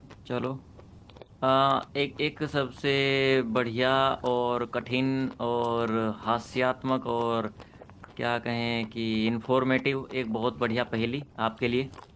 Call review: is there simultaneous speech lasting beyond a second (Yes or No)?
No